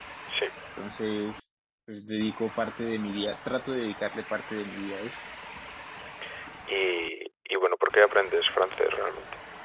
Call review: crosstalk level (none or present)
none